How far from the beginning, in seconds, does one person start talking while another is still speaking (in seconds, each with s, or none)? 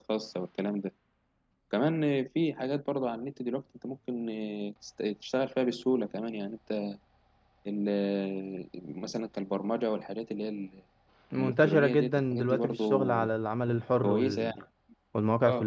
11.4 s